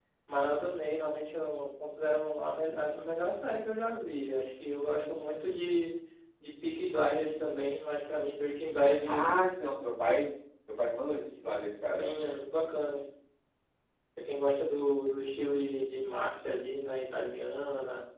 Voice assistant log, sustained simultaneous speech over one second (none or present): none